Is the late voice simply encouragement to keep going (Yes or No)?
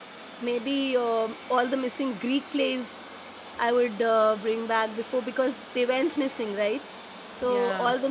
Yes